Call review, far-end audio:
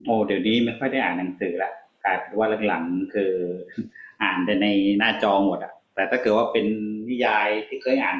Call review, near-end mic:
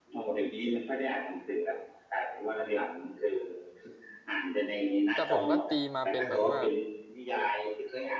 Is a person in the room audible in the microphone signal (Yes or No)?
Yes